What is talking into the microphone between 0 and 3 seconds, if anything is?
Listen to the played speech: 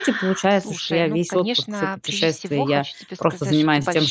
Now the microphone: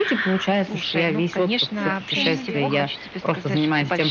both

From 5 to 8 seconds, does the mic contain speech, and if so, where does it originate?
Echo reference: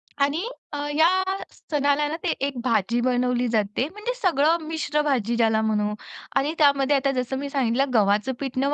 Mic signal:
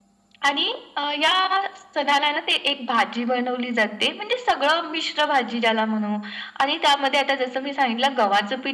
echo only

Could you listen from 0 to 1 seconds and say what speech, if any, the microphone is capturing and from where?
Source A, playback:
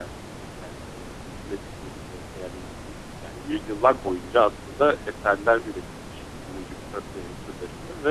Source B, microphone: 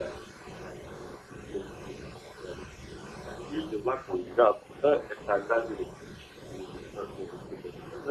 echo only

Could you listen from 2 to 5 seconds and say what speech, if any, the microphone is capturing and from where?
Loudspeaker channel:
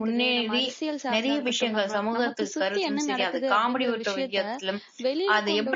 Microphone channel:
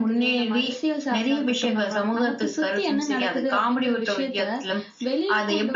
echo only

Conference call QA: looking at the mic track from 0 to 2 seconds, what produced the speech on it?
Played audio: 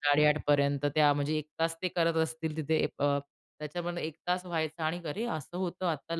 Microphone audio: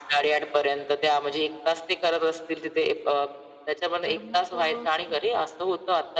echo only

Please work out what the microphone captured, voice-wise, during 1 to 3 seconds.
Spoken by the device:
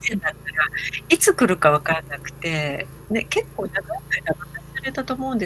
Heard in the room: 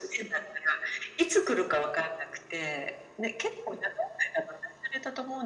echo only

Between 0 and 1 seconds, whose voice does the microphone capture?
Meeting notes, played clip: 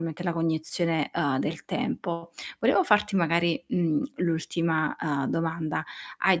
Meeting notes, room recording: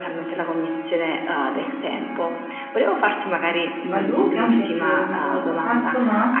echo only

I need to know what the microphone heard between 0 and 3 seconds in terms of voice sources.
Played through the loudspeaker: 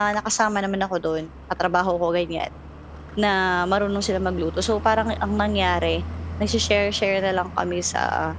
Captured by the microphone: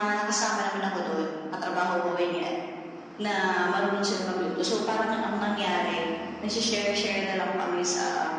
echo only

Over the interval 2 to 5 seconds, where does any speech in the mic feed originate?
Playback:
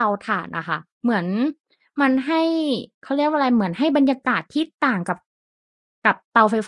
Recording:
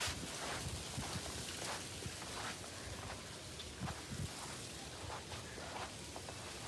neither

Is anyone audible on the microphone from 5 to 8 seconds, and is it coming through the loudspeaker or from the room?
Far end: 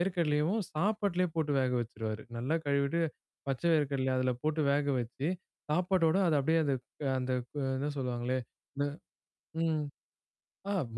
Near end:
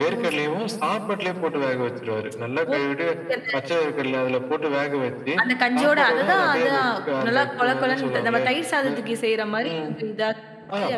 both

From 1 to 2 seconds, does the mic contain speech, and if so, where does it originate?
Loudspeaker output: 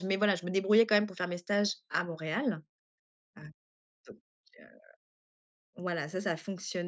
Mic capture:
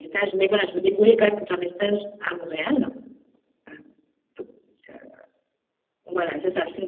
echo only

